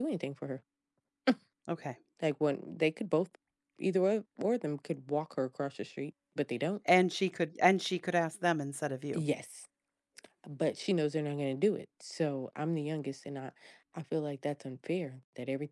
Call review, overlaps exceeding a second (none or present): none